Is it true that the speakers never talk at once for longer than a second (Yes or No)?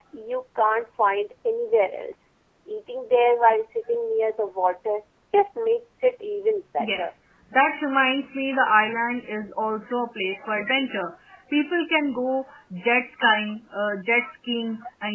Yes